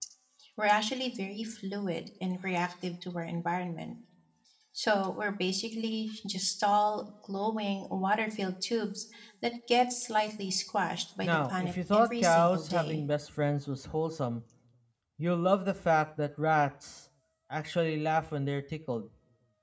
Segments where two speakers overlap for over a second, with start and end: 11.2-13.0

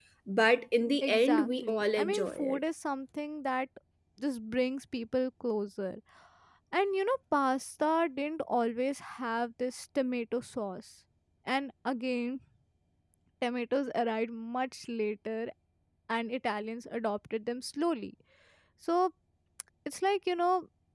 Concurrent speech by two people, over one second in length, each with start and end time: 1.0-2.6

